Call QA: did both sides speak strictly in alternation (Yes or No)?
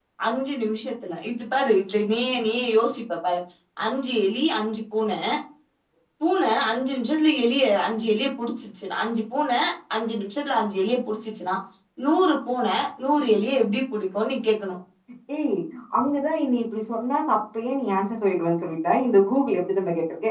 Yes